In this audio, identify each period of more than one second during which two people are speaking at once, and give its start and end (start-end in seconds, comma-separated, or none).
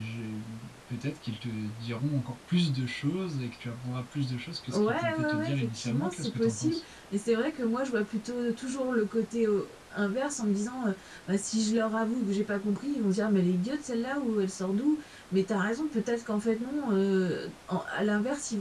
4.7-6.8